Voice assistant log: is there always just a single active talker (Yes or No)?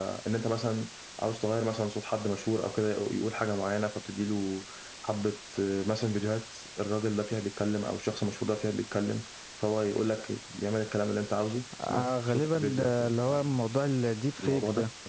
No